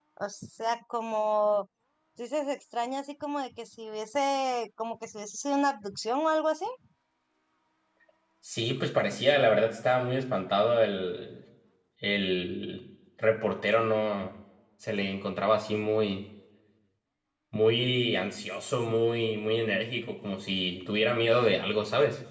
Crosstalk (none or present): none